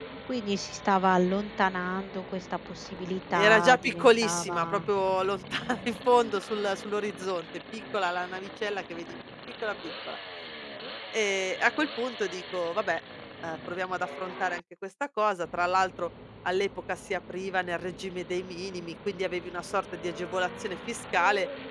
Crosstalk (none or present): present